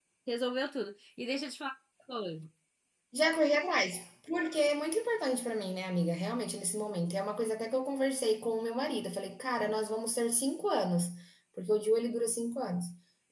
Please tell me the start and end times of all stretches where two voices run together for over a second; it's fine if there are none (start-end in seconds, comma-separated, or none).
none